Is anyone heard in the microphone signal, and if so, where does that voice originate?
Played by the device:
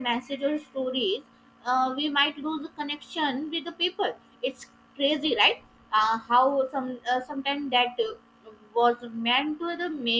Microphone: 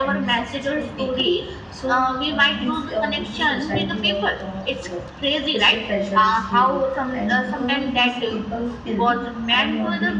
both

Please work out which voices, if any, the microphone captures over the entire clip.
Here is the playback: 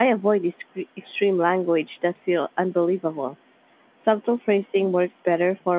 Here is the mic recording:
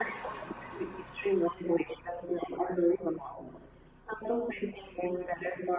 echo only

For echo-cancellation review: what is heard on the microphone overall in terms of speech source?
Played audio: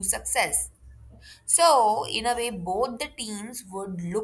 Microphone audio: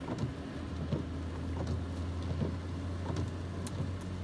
neither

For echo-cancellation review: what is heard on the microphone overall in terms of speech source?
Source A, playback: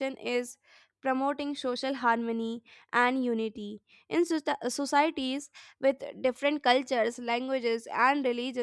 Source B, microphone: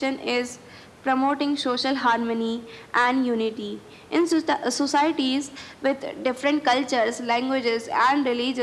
echo only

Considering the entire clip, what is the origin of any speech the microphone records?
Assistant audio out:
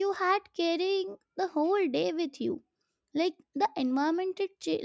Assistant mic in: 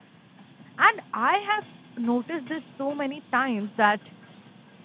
user only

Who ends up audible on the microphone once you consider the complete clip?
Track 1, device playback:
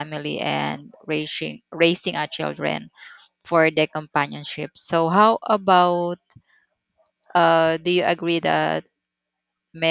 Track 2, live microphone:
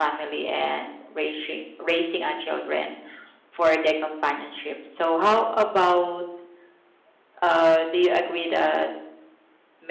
echo only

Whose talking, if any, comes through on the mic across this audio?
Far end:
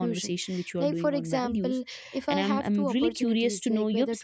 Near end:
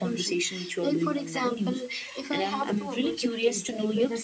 echo only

